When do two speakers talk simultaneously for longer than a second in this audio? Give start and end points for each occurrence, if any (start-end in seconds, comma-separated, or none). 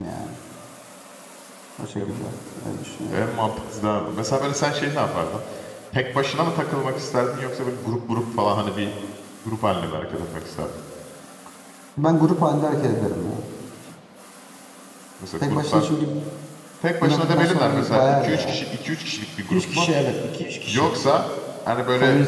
17.0-18.6